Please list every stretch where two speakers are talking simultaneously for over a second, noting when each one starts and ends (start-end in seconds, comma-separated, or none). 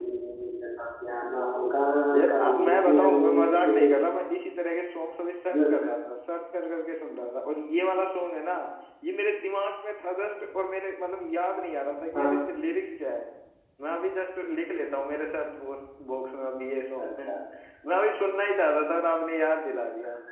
2.3-4.0